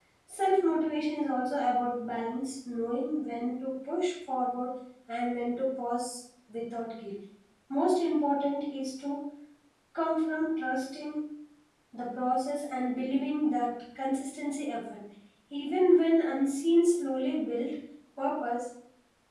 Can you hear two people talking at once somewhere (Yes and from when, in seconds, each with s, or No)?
No